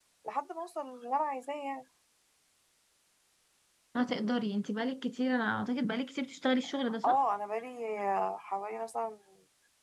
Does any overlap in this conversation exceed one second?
No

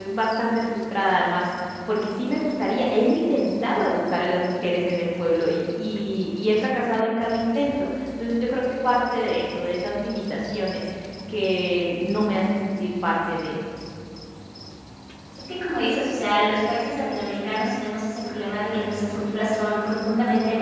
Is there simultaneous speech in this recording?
No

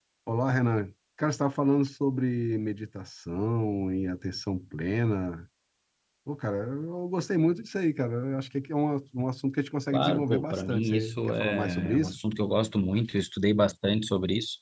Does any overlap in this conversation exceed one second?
Yes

